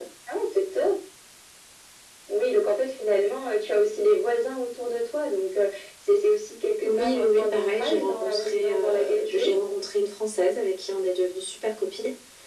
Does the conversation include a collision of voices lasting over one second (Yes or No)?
Yes